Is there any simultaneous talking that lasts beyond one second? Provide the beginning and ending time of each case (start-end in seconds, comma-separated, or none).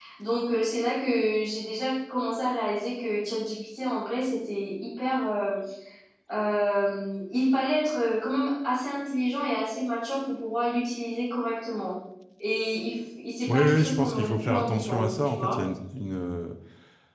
13.5-15.6